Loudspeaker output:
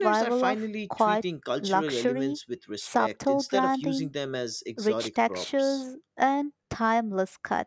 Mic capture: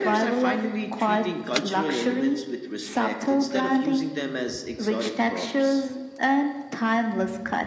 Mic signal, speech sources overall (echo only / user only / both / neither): echo only